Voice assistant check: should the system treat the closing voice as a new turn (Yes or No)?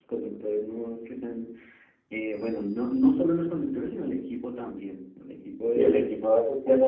Yes